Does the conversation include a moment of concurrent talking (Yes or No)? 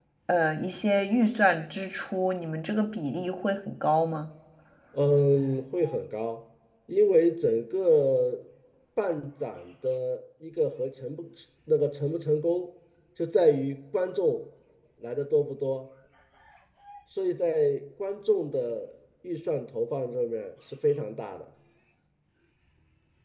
No